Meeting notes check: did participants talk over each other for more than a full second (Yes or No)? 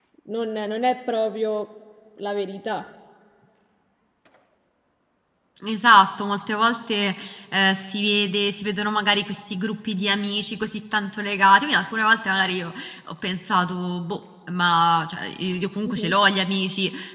No